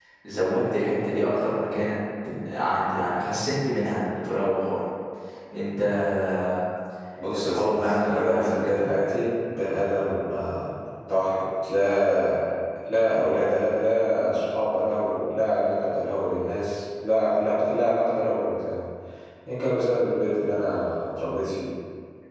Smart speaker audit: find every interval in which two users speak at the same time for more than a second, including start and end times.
7.4-8.8

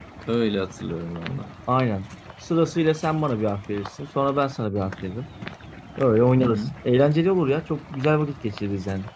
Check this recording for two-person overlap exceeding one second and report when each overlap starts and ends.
none

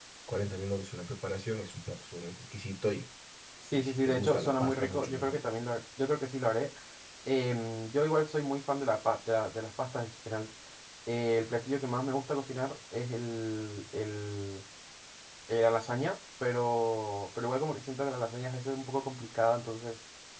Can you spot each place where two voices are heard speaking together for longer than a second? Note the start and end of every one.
3.7-5.4

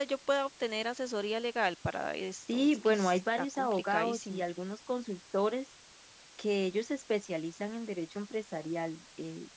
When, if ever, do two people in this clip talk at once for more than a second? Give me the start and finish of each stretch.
2.5-4.4

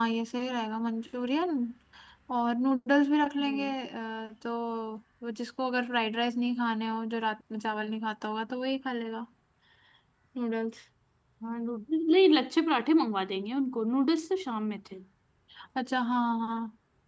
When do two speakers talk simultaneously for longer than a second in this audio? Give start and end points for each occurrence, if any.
none

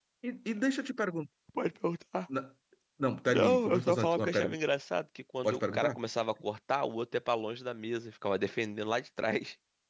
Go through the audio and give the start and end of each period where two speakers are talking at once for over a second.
3.3-4.6

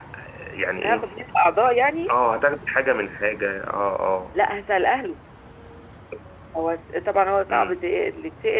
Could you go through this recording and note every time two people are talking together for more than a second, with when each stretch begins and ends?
none

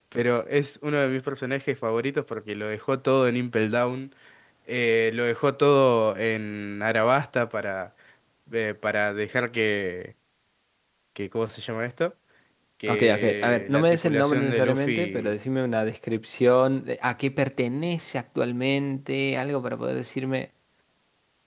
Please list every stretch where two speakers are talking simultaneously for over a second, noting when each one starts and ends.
12.9-15.3

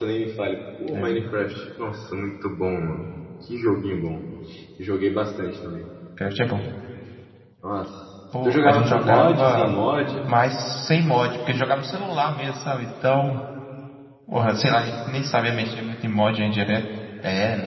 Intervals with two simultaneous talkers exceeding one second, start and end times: 8.4-9.7

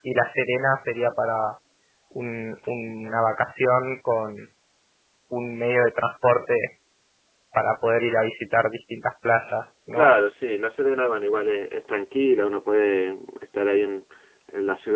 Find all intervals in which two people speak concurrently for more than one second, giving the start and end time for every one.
none

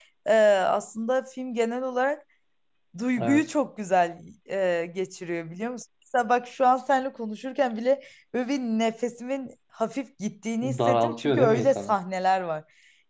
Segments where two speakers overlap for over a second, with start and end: 10.6-12.0

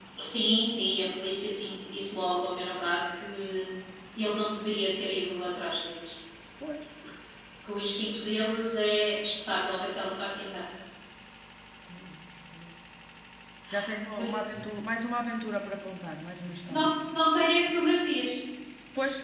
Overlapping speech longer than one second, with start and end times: none

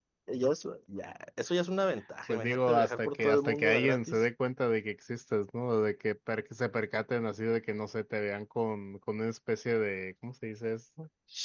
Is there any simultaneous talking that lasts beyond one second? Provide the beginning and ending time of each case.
2.3-4.2

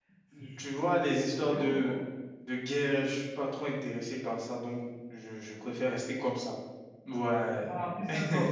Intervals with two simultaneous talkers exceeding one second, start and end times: 0.6-2.0

